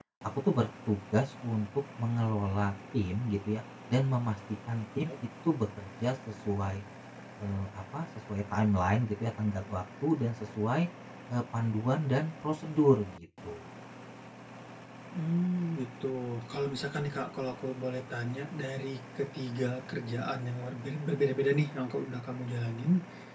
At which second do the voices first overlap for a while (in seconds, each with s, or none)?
none